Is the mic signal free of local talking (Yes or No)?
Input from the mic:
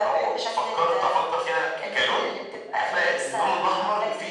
Yes